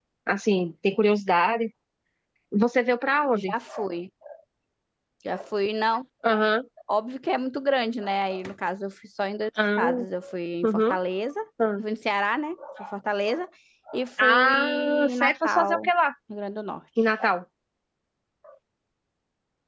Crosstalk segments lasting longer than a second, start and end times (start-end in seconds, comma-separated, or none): 14.2-15.9